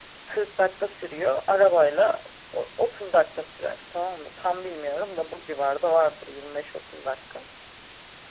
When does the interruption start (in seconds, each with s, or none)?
none